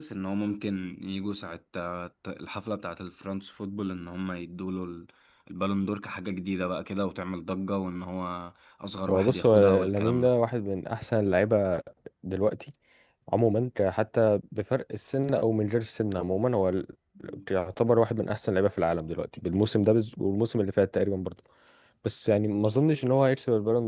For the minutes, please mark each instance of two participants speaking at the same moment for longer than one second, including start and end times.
9.1-10.3

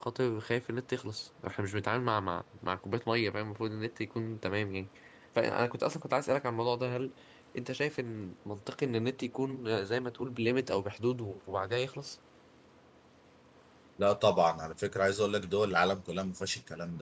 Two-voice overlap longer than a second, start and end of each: none

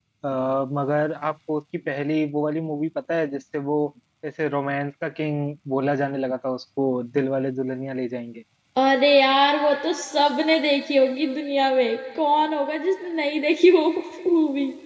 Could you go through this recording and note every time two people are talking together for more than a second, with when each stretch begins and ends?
none

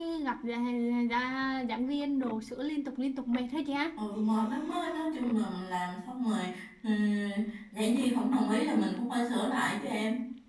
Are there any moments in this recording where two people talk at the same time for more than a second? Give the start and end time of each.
none

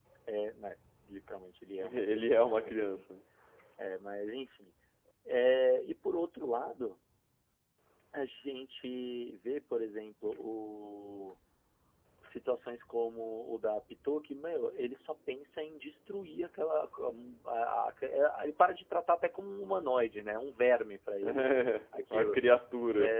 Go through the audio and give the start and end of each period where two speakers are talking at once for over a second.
1.8-3.0

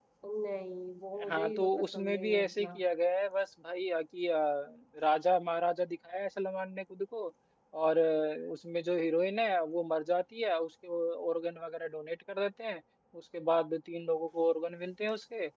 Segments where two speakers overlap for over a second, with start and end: 1.3-2.7

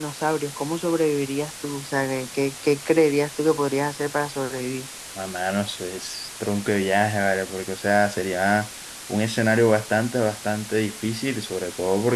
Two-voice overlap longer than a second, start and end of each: none

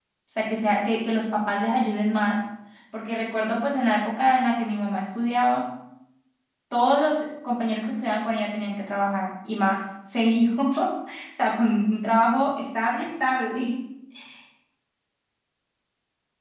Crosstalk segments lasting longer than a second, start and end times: none

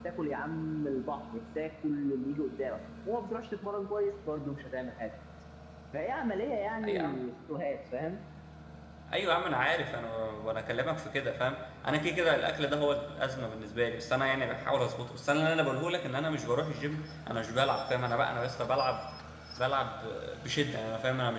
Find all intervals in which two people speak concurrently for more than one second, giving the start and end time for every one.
none

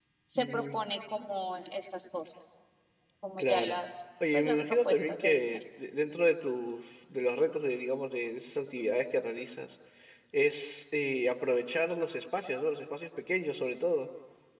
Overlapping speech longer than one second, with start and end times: 4.3-5.6

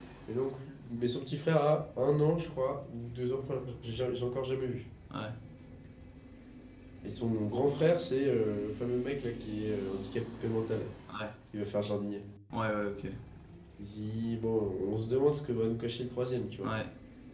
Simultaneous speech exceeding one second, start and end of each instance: none

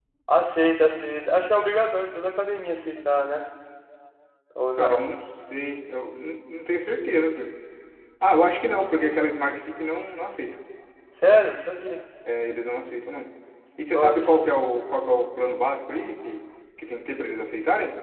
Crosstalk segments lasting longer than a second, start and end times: none

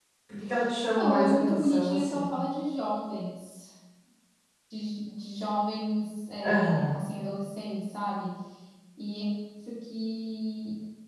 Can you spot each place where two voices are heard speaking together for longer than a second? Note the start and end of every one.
0.8-2.4

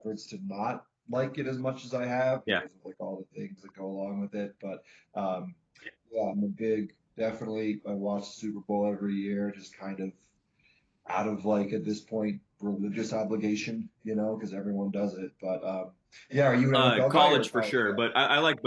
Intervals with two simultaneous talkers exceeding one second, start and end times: 16.7-18.0

